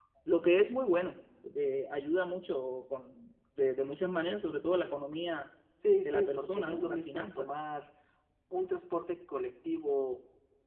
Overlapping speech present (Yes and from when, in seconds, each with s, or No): Yes, from 6.0 s